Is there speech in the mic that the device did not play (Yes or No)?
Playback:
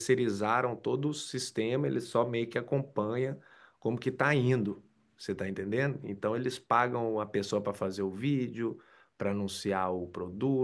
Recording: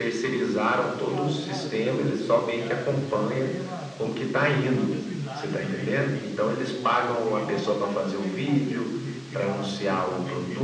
Yes